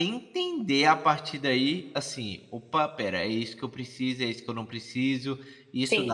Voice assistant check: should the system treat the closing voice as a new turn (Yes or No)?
Yes